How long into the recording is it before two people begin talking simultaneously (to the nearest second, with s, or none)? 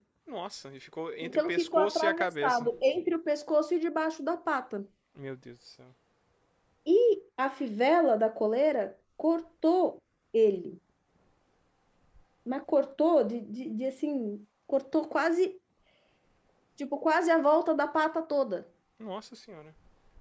1 s